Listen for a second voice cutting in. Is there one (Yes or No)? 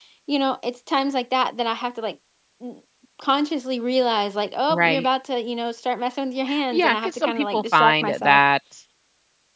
Yes